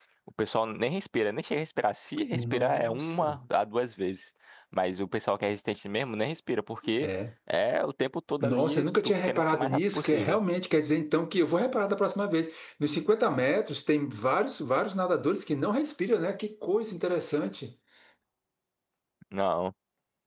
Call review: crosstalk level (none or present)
present